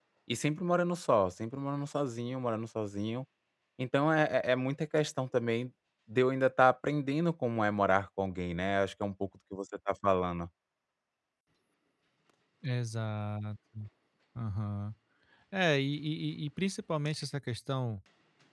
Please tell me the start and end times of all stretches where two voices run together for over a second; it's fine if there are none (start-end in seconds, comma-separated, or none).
none